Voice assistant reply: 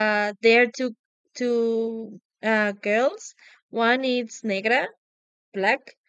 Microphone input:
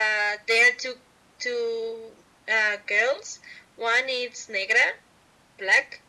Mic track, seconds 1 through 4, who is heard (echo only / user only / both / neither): echo only